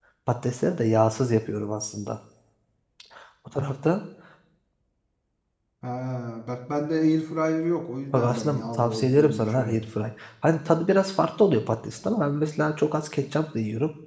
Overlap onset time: 8.1 s

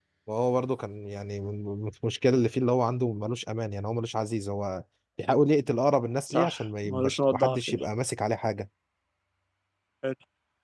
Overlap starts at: 6.3 s

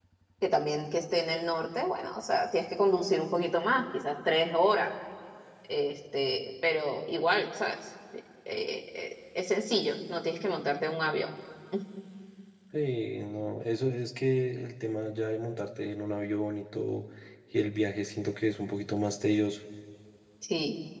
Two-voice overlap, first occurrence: none

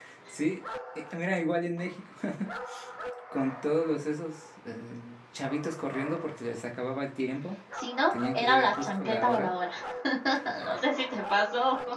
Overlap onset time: 8.1 s

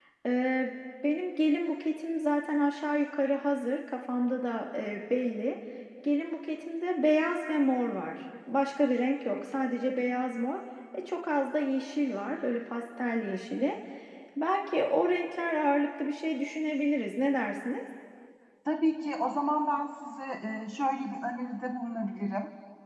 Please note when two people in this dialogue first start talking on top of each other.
none

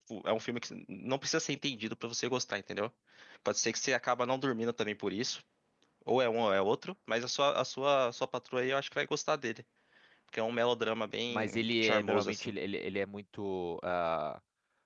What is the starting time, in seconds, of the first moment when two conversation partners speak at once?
11.3 s

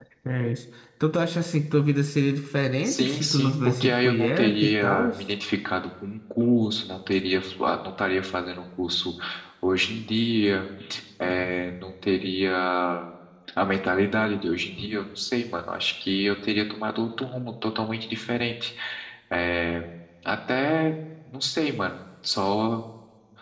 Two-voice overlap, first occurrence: 2.8 s

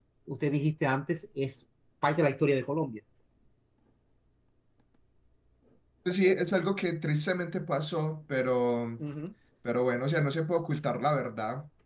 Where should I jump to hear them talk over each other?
none

